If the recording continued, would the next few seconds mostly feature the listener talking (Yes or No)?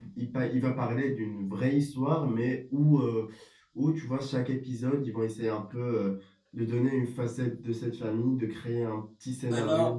Yes